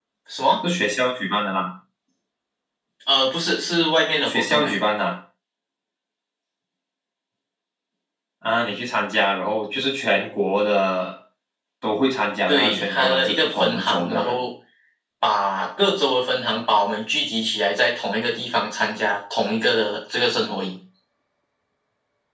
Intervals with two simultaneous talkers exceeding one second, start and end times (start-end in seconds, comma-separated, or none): 12.5-14.4